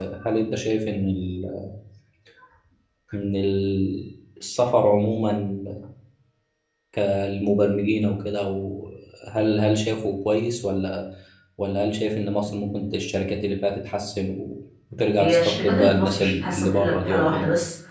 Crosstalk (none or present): present